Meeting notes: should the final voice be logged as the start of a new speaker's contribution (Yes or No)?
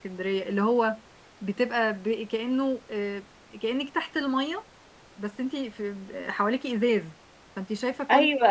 Yes